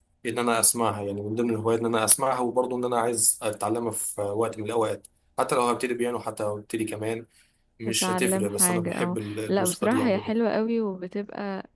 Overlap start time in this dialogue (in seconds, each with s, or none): 8.0 s